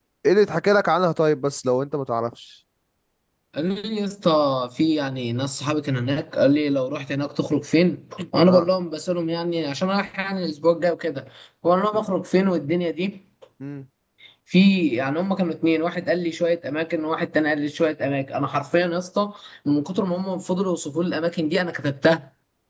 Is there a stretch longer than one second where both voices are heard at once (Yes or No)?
No